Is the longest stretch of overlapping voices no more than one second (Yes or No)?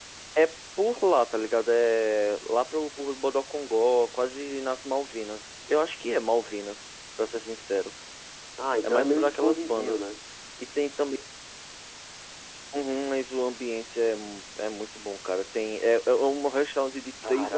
No